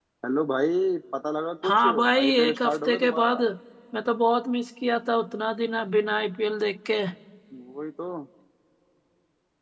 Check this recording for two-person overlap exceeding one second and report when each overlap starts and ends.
1.6-3.4

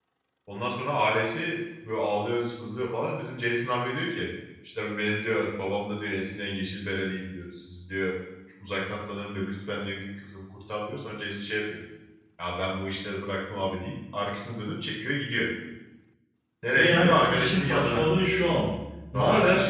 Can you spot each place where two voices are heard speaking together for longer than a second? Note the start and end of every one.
16.8-18.1

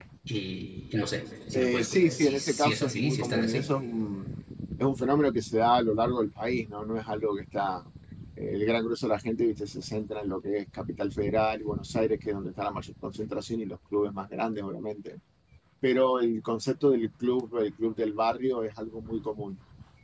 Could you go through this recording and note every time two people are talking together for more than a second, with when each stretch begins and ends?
1.5-3.7

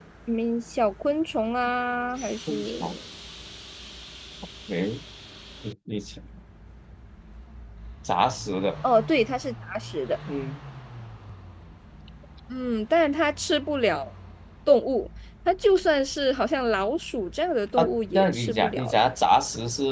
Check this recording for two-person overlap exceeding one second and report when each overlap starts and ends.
17.8-19.0

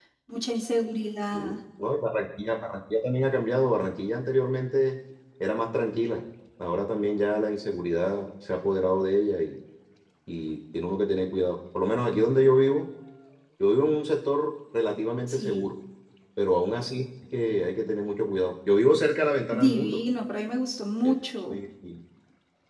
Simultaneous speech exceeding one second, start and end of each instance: none

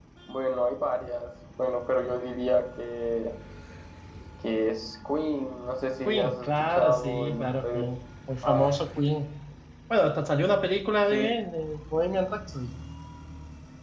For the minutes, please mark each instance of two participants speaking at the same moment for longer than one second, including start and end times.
6.0-7.8

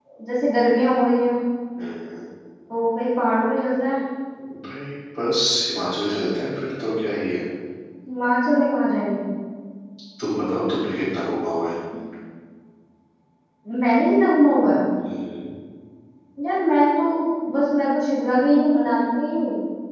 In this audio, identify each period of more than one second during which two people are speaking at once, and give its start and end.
none

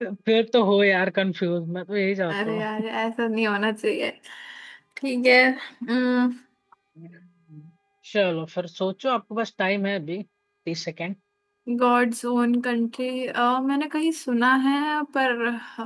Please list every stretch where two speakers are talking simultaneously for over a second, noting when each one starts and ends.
none

